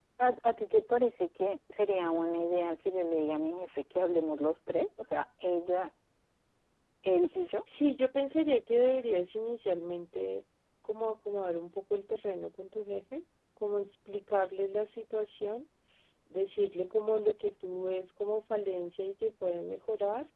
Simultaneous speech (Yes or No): No